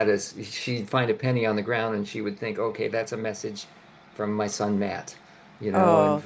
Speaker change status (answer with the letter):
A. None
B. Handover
B